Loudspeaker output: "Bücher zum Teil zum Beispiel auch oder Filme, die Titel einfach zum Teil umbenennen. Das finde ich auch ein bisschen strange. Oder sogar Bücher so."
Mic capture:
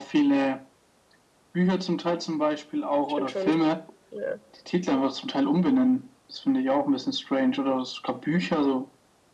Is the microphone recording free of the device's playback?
No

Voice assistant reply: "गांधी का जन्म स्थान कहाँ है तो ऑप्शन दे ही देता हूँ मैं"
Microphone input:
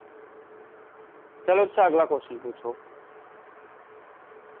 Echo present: No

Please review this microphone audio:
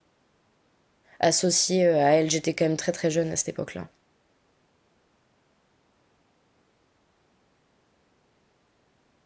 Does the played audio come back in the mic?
No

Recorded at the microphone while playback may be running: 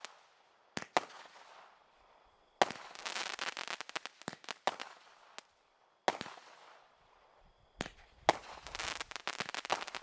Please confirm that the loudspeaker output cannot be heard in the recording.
Yes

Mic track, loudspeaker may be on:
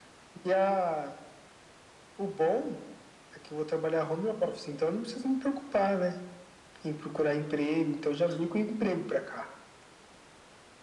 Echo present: Yes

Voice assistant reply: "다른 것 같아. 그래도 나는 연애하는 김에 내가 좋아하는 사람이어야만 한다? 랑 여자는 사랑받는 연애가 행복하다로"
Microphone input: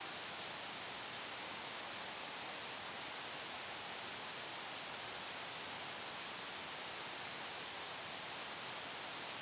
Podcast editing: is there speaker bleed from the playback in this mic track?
No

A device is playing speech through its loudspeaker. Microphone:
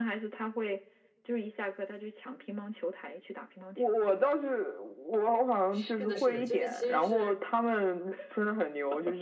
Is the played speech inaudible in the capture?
No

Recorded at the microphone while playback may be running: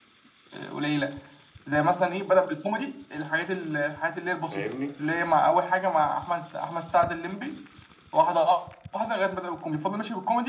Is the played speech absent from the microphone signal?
No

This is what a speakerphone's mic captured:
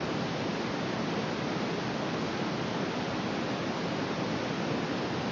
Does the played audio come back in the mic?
No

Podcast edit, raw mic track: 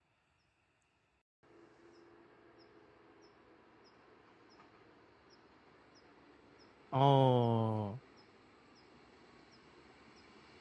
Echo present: No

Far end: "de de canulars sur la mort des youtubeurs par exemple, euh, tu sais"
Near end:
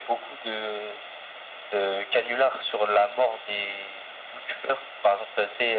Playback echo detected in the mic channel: Yes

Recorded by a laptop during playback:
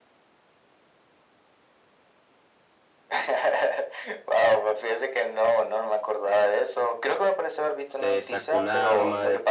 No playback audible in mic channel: No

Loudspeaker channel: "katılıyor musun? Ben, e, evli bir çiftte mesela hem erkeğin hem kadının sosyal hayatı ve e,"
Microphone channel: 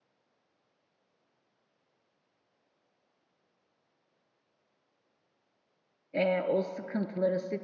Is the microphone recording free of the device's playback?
Yes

